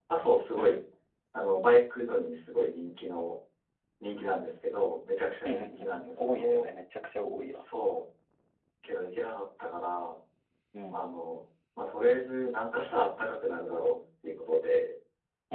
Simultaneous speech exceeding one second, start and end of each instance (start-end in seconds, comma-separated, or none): 5.4-6.7